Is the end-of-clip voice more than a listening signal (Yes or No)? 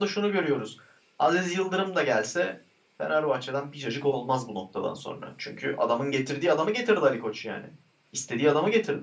Yes